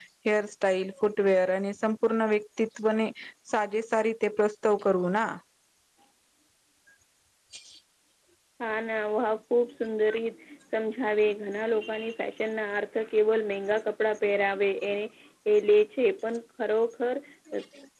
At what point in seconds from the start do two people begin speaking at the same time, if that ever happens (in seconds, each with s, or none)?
none